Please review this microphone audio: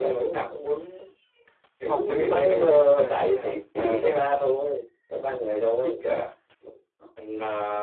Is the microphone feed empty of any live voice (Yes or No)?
No